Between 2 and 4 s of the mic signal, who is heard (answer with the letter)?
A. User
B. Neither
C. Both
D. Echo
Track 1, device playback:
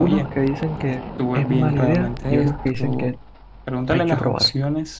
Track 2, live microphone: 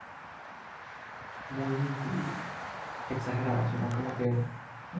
A